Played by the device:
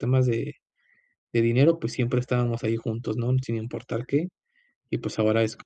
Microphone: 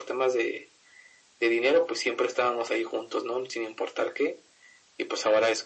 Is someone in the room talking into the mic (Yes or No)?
No